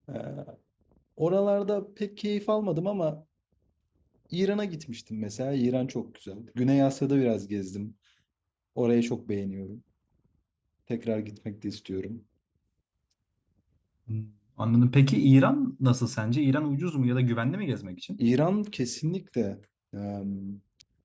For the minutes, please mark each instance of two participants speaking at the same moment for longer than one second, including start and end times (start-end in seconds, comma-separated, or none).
none